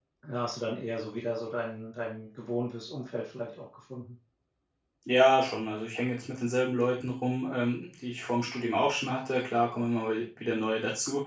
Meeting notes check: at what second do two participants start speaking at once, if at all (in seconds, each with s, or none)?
none